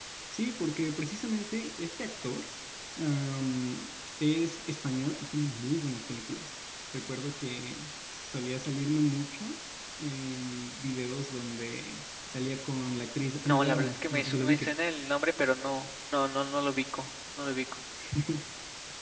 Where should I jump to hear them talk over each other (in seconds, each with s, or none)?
13.4 s